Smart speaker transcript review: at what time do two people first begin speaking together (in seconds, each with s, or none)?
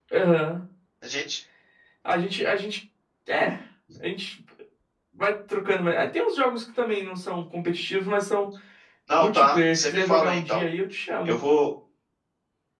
9.2 s